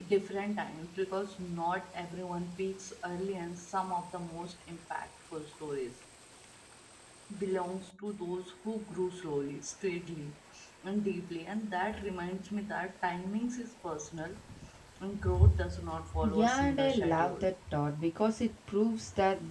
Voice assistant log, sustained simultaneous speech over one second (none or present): present